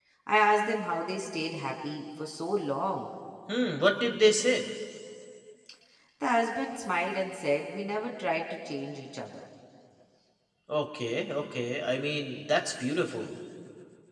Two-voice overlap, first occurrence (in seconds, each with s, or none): none